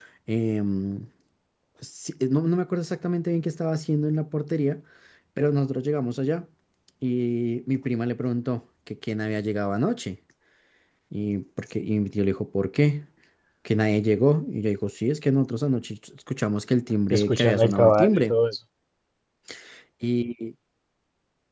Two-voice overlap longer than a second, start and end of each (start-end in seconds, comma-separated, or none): 17.1-18.4